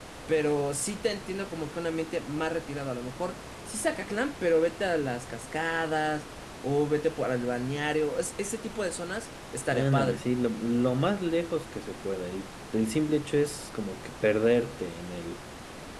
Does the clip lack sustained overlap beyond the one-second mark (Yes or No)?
Yes